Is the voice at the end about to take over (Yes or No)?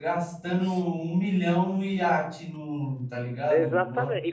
Yes